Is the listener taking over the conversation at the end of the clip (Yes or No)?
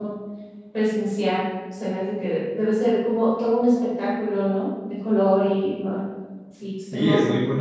Yes